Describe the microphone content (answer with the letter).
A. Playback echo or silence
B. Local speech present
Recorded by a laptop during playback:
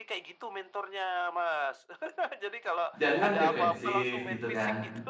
B